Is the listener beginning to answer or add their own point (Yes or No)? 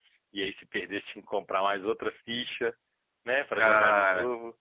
No